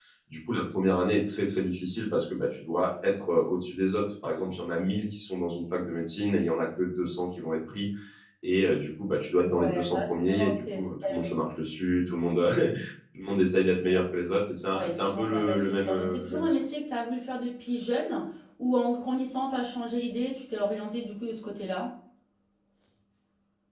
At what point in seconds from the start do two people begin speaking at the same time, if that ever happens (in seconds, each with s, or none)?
9.6 s